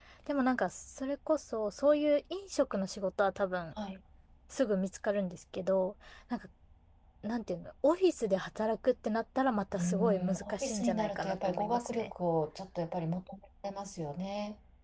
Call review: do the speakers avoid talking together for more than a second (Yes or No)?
No